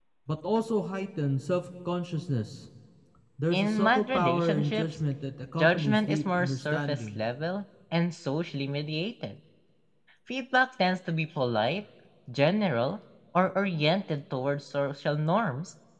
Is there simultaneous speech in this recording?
Yes, from 3.5 s

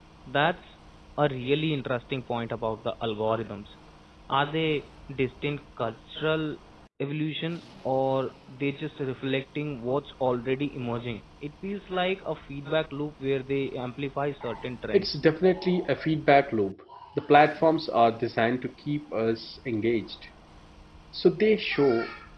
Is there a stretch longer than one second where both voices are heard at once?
No

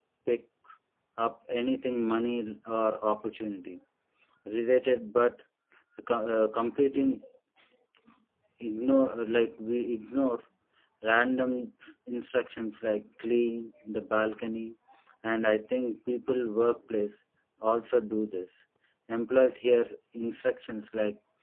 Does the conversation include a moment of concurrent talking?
No

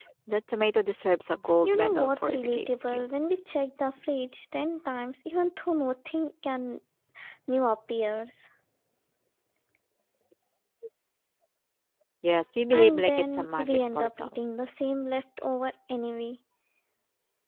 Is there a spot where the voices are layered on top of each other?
Yes, from 1.6 s

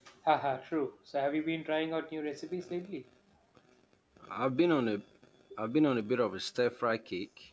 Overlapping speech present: No

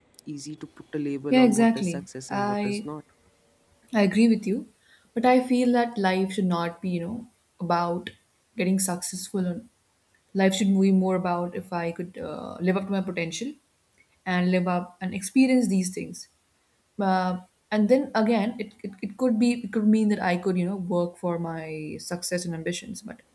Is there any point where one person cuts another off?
Yes, from 1.3 s

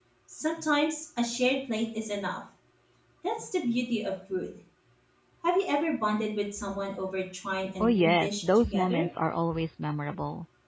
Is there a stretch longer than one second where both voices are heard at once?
Yes, from 7.8 s

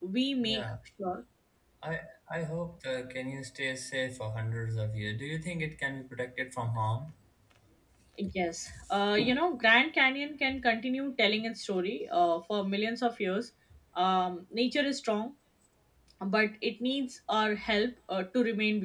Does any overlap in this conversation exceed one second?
No

